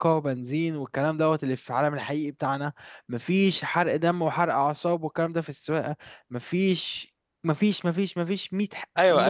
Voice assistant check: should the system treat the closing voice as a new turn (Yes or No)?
Yes